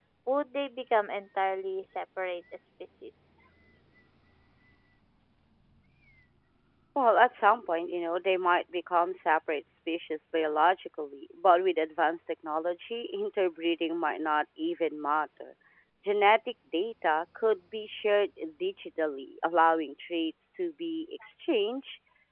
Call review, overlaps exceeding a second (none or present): none